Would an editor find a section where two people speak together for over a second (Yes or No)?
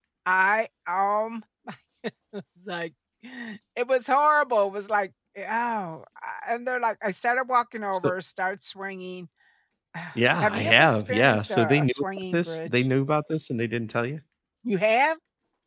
Yes